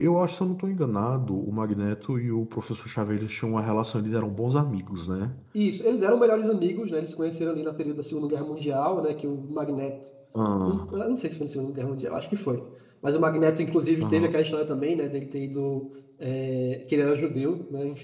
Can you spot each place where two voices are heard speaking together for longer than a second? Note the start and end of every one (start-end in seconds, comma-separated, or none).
none